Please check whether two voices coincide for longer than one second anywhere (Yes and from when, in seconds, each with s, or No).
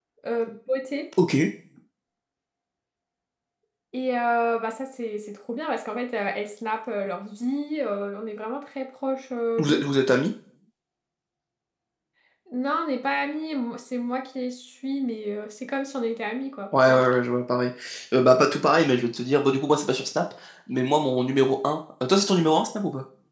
No